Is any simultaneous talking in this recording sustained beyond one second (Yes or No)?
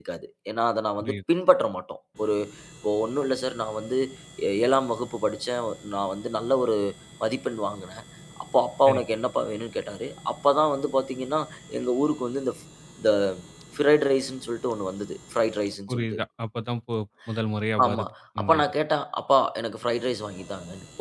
No